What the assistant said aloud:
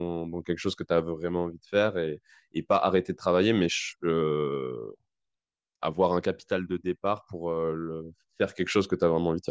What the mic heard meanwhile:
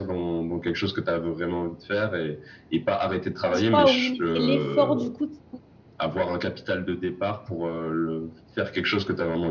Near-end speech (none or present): present